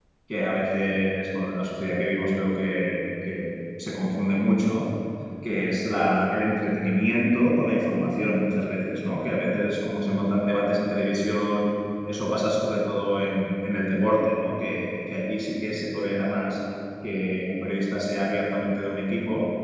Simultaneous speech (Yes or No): No